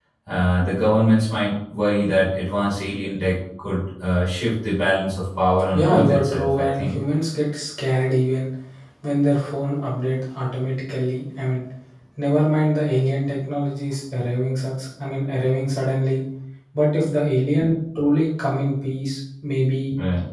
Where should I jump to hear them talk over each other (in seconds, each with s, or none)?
5.7 s